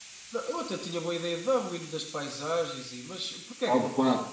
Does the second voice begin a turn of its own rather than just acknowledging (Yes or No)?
Yes